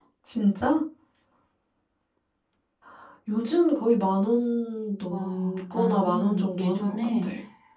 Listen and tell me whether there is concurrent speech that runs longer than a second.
Yes, from 5.1 s

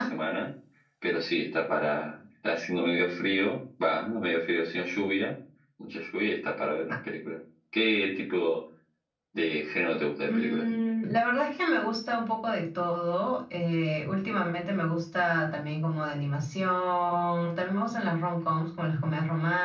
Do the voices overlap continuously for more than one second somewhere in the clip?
No

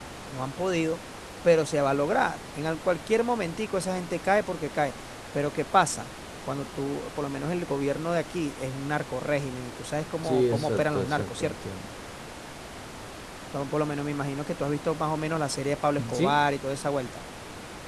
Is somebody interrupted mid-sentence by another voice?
Yes, from 10.2 s

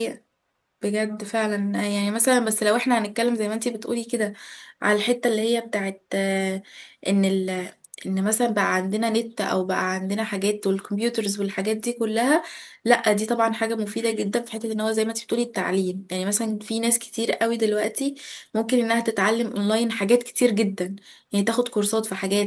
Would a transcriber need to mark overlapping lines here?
No

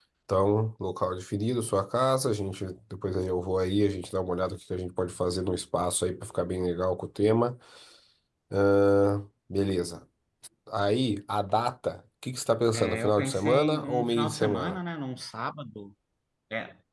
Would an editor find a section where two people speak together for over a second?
Yes, from 12.7 s

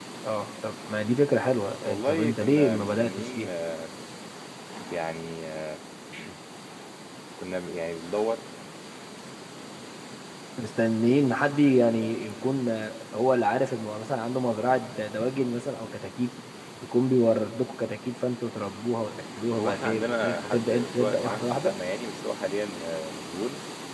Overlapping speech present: Yes, from 1.9 s

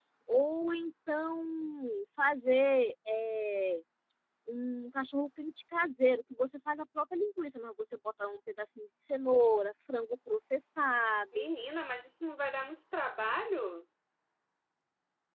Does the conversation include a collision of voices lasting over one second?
No

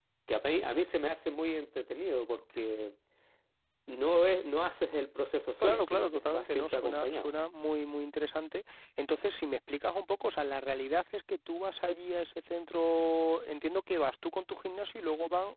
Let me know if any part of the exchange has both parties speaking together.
Yes, from 5.6 s

